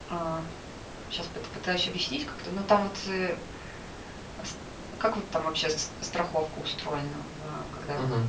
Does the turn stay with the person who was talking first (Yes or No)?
No